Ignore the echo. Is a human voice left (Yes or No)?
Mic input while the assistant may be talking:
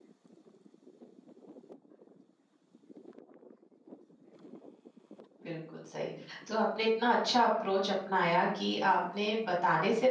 Yes